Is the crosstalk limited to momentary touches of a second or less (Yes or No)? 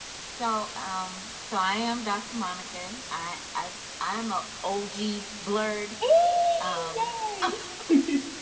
Yes